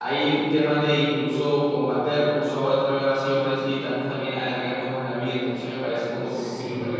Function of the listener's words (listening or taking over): taking over